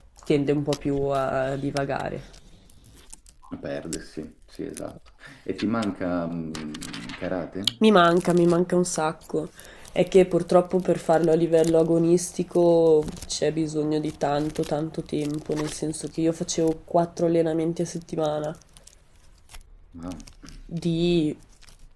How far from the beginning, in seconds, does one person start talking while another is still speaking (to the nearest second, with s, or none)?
none